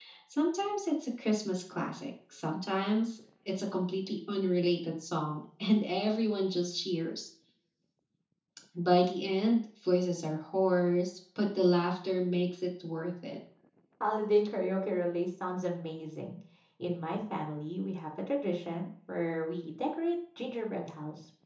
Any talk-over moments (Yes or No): No